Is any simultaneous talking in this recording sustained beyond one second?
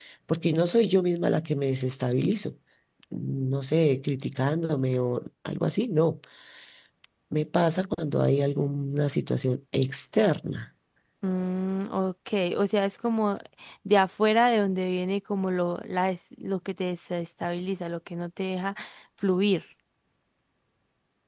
No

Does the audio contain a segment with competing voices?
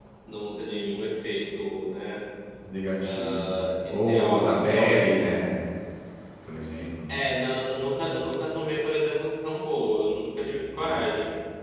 Yes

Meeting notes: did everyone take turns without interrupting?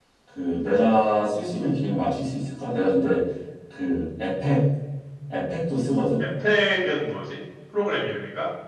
Yes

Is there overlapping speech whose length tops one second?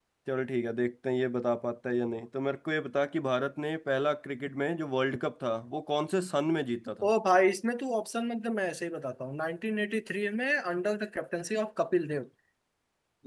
No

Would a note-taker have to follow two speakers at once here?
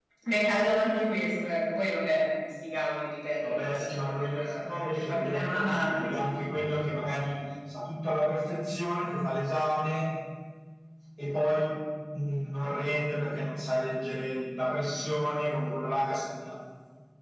Yes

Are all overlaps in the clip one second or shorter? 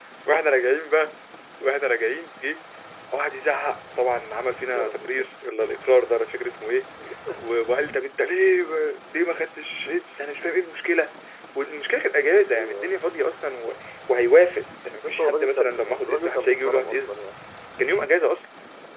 No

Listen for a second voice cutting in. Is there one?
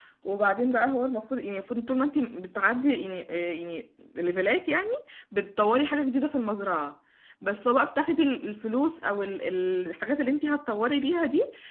No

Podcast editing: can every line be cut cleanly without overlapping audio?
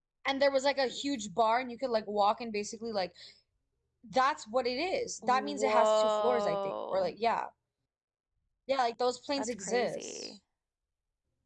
No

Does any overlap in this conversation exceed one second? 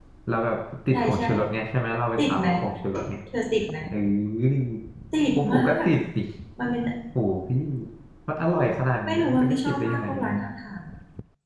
Yes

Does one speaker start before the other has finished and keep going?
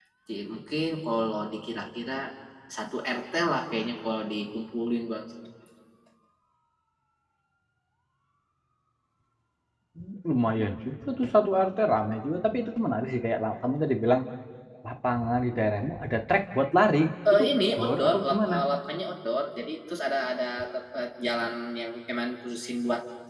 Yes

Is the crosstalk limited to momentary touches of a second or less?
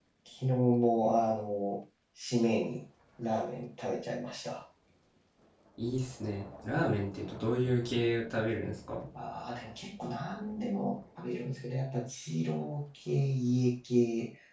Yes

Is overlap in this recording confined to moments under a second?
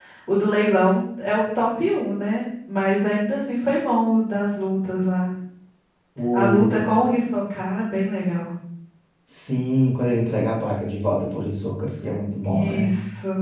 Yes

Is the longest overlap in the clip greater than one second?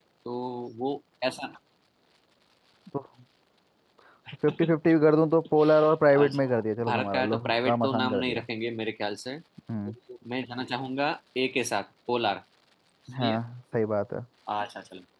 Yes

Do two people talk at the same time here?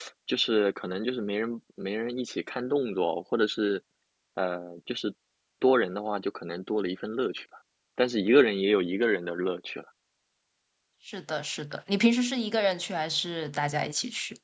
No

